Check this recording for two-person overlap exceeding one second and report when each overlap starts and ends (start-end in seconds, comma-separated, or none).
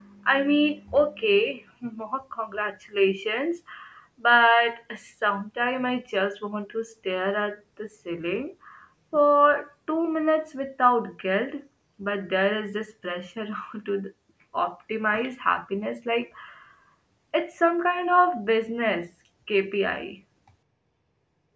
none